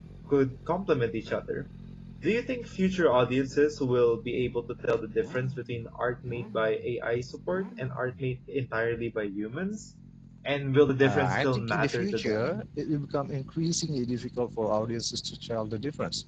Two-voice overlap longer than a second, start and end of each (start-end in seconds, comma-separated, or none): 11.0-12.6